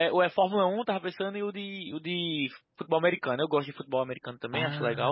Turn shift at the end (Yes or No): Yes